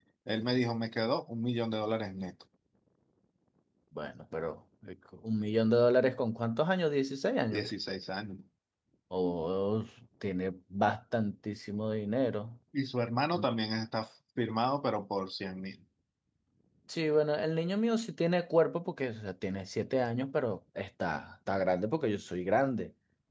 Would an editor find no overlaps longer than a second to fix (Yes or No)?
Yes